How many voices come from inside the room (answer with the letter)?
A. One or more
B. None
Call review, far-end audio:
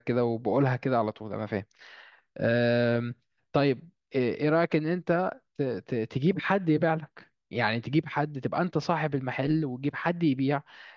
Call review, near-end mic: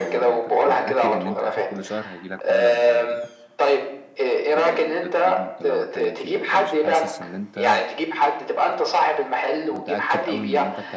A